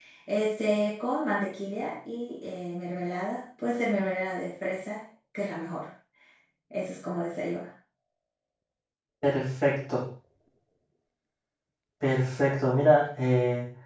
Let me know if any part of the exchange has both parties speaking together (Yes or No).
No